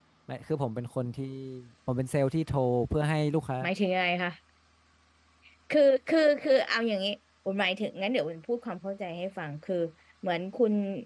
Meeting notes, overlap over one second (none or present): none